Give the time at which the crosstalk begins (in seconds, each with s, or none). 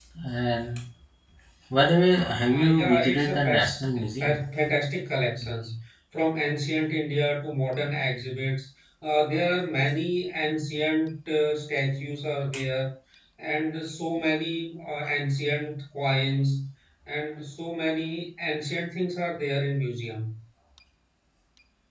2.5 s